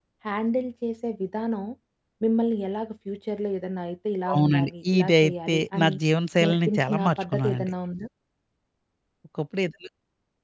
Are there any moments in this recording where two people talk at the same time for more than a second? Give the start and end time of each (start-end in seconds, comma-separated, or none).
4.3-6.0, 6.4-7.7